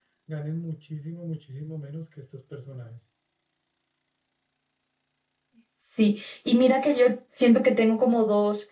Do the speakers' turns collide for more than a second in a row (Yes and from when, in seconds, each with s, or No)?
No